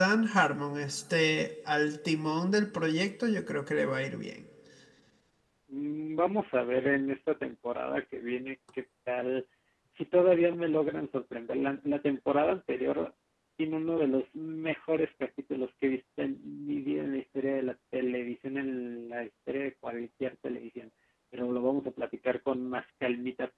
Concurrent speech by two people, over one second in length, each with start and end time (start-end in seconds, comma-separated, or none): none